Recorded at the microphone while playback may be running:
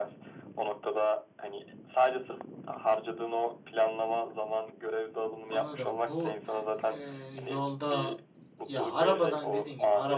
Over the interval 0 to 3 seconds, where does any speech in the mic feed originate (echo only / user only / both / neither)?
echo only